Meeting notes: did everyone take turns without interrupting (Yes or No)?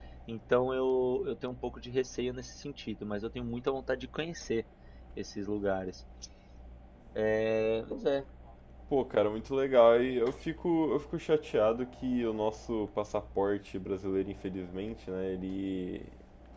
Yes